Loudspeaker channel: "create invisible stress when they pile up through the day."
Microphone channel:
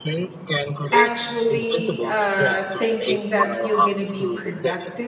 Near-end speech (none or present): present